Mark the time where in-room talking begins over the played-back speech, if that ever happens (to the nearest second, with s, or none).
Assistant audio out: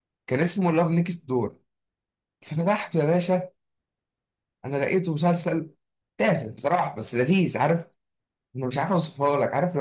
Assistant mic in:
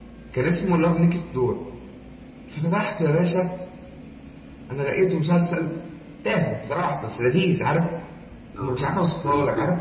9 s